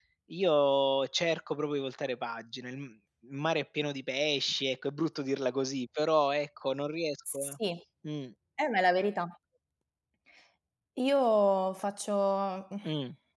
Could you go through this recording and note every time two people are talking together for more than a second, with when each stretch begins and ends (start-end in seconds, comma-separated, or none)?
none